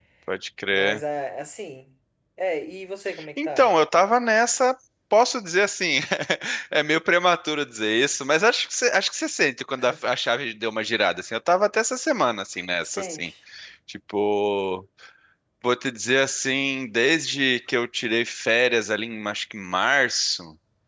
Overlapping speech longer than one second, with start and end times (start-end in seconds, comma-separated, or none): none